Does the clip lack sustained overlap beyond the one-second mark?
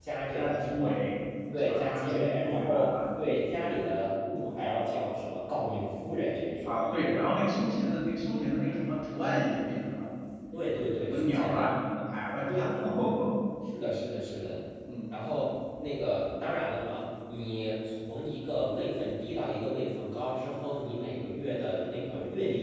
No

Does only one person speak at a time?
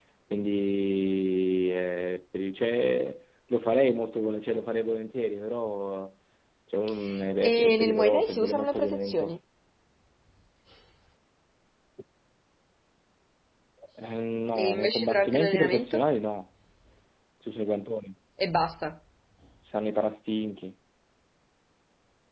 No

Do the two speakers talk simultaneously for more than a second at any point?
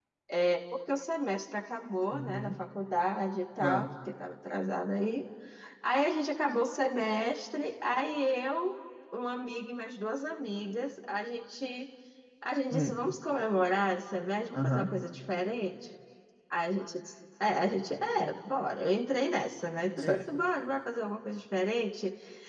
No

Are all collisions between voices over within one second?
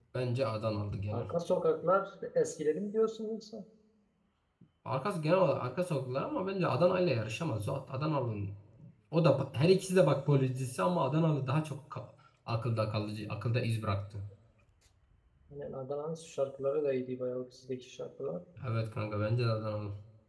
Yes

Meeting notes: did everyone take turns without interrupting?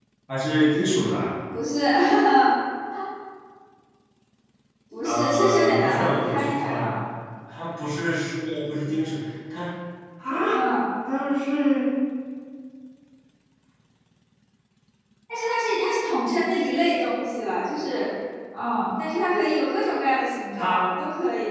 No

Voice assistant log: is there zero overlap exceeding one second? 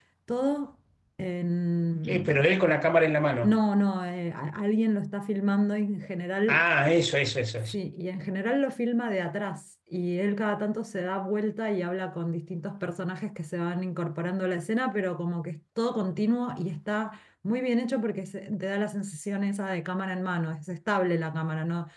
Yes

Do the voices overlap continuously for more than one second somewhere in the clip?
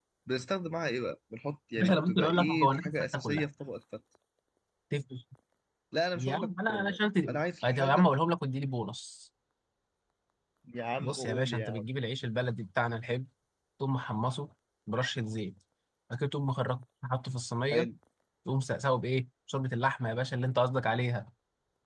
Yes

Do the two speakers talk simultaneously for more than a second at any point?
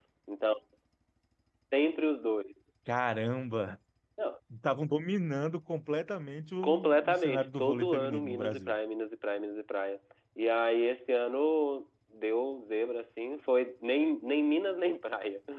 Yes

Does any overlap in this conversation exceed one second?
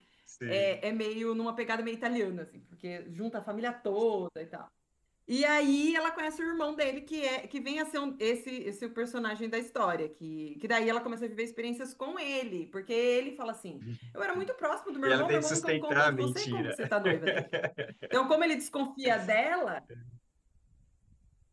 Yes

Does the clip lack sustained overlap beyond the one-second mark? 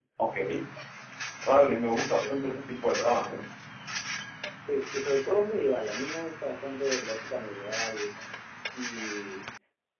Yes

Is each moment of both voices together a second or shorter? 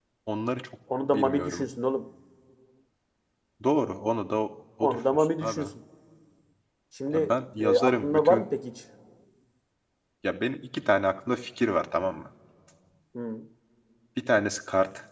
No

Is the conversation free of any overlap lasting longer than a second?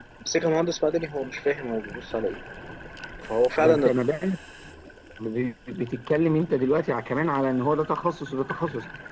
Yes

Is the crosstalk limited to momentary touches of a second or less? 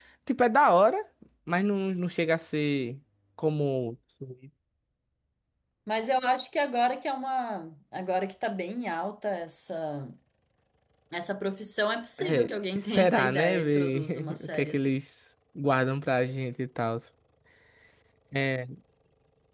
No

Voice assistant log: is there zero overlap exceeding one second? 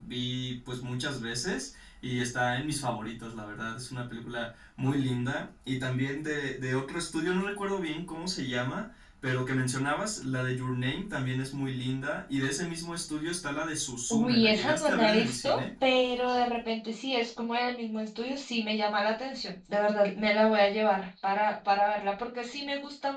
No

